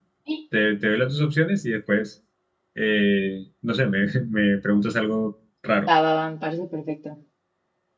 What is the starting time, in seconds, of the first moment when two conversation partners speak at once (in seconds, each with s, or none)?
none